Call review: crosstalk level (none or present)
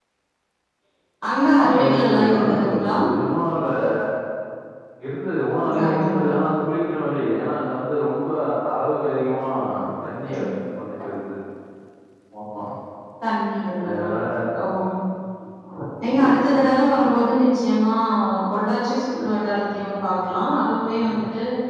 present